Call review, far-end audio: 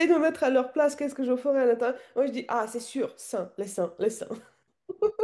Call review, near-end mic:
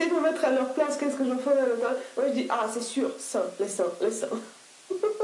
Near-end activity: none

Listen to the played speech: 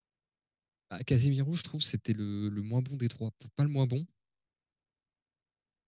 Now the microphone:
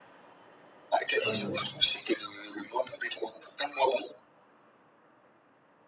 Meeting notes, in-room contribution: present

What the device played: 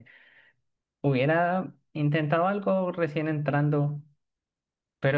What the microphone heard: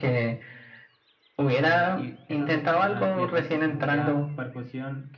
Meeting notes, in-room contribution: present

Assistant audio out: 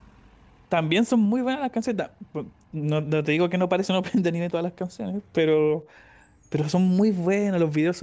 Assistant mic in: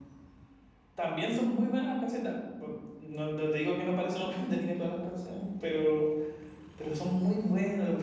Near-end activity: none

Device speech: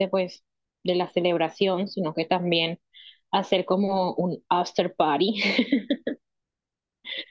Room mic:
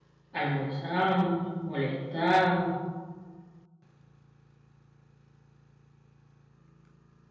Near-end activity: present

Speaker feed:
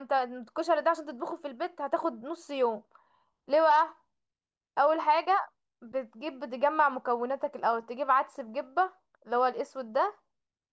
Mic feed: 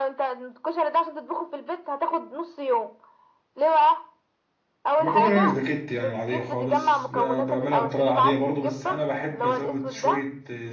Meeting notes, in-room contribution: present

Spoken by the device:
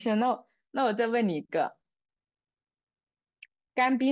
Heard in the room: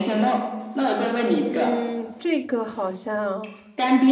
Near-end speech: present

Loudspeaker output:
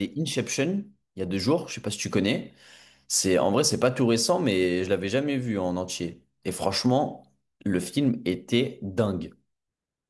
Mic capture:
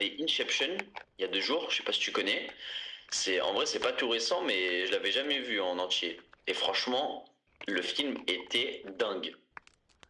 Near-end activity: none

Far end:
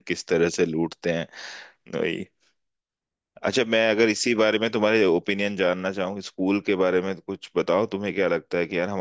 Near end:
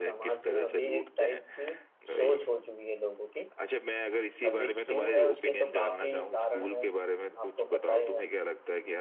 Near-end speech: present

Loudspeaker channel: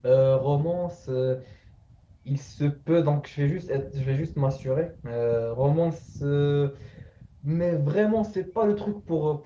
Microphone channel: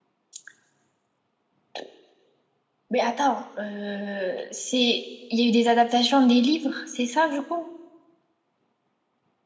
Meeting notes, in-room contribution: present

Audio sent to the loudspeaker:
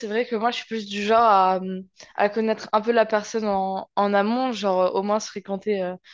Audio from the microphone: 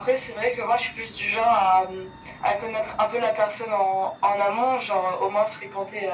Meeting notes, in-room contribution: none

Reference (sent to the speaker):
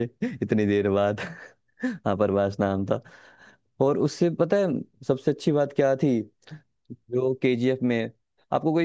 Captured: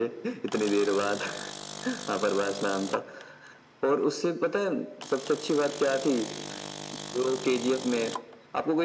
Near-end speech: none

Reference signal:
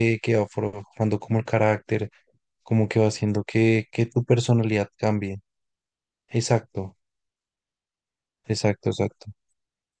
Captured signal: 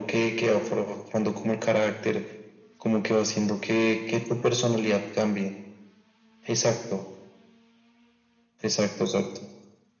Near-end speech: none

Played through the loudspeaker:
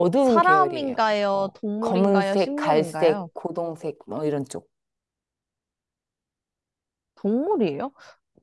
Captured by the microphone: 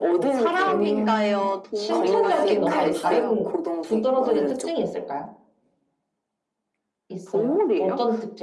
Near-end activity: present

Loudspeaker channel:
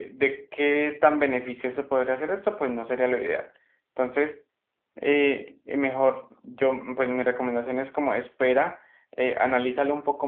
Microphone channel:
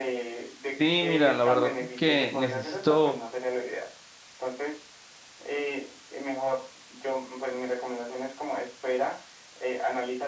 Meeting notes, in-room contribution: present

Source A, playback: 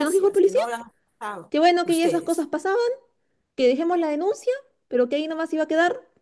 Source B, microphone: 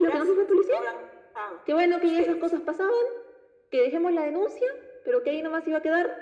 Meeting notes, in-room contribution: none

